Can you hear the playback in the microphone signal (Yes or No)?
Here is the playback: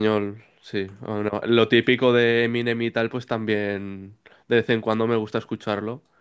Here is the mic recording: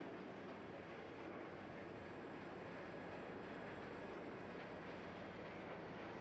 No